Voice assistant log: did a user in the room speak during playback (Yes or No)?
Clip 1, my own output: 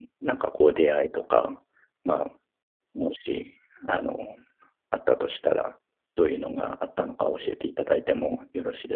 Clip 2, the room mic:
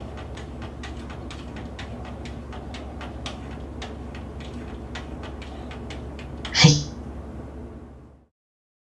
Yes